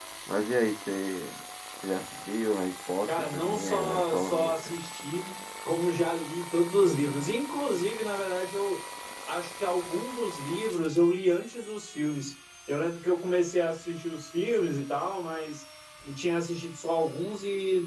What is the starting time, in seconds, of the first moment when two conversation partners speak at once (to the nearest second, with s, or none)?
3 s